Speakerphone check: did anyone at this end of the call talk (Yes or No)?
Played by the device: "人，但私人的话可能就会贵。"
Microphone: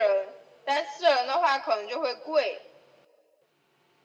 No